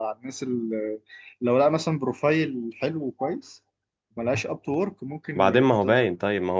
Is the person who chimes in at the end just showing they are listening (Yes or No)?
No